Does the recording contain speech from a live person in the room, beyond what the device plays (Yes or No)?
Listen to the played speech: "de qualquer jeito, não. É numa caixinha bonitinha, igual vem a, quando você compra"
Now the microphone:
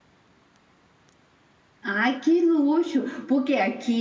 Yes